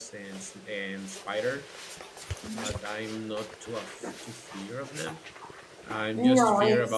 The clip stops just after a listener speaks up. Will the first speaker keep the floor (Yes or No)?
Yes